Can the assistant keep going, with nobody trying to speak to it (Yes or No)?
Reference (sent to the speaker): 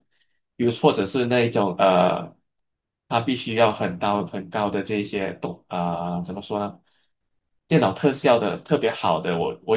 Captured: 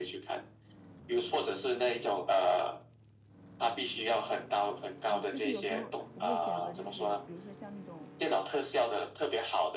No